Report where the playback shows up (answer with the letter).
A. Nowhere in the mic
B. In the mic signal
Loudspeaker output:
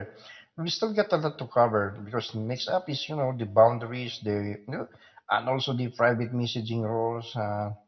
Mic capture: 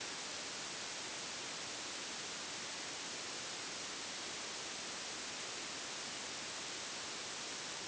A